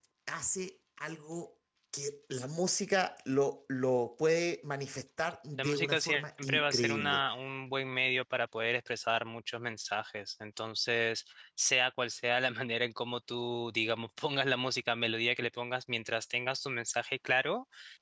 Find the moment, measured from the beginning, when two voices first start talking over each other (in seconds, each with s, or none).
5.6 s